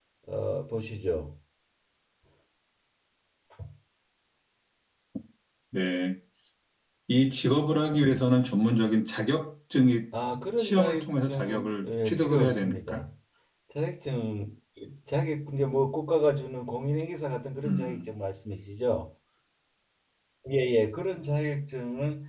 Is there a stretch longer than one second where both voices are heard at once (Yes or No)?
Yes